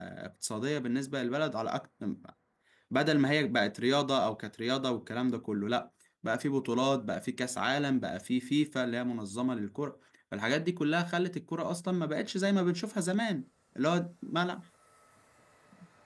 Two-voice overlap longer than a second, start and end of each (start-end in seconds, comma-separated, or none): none